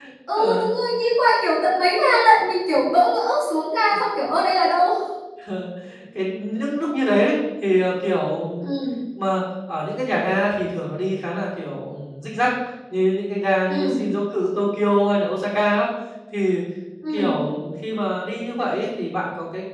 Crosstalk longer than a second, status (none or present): none